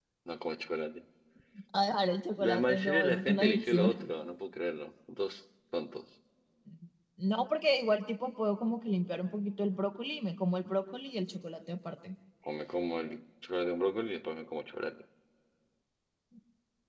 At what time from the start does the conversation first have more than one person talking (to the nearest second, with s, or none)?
2 s